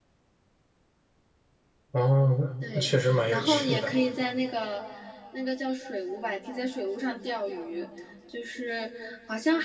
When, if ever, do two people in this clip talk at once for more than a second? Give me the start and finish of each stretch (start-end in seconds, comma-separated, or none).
2.7-3.9